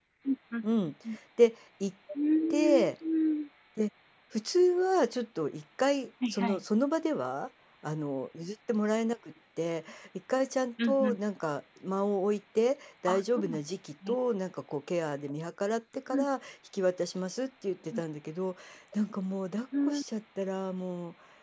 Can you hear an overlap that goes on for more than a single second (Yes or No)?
No